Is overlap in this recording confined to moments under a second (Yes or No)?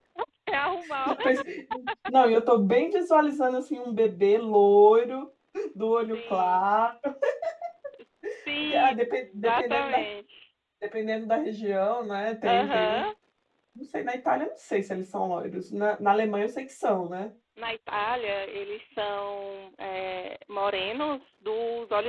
No